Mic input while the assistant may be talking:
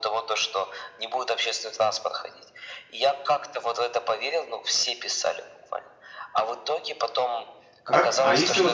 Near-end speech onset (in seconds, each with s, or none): 7.8 s